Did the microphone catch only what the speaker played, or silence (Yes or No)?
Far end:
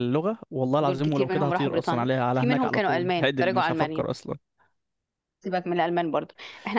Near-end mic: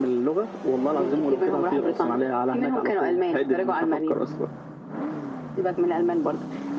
Yes